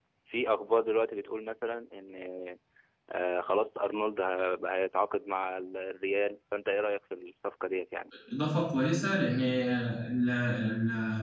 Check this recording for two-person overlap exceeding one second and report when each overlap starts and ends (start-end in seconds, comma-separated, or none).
none